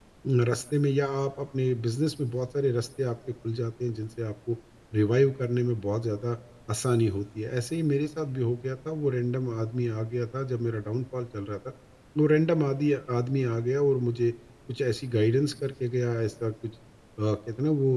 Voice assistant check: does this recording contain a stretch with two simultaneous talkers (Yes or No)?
No